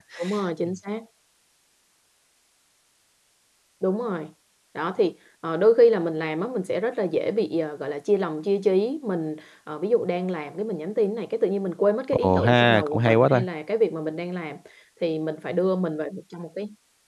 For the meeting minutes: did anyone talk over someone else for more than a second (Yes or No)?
Yes